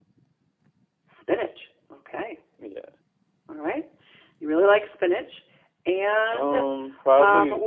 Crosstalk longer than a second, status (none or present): none